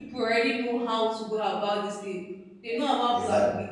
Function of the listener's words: listening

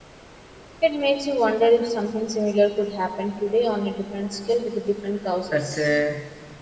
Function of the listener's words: taking over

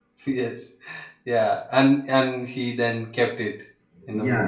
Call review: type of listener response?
taking over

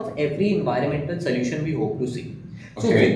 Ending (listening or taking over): listening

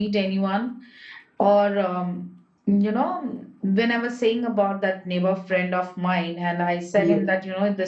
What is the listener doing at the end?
listening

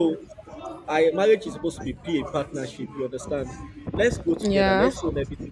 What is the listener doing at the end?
listening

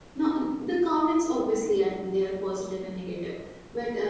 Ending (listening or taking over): listening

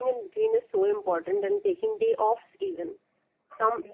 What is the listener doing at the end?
listening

